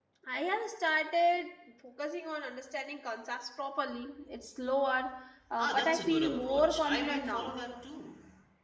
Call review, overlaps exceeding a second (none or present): present